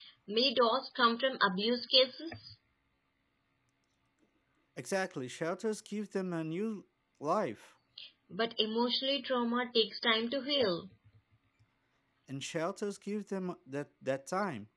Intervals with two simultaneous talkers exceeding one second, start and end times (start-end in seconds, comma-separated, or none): none